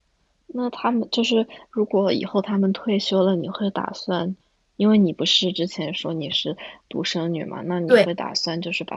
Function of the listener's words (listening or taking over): listening